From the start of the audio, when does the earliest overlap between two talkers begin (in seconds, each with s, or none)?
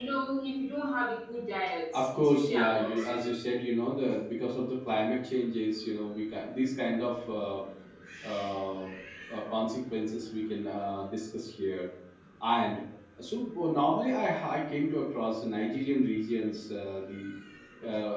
1.9 s